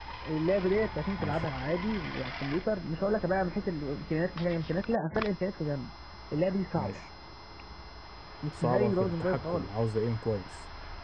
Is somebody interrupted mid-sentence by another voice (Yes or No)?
Yes